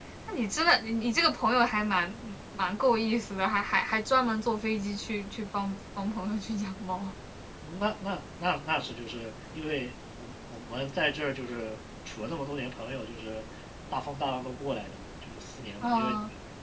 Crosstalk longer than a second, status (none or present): none